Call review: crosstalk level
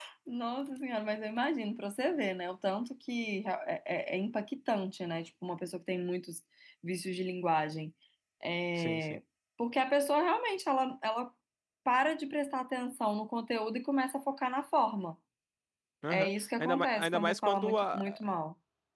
present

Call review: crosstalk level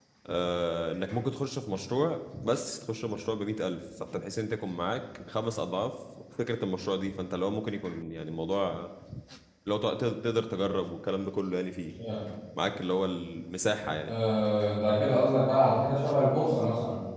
none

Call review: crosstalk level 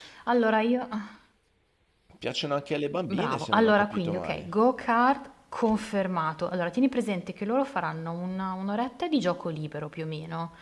present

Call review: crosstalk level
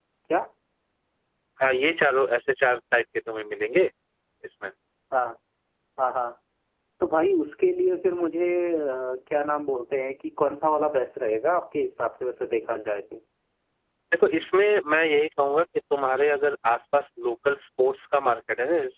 none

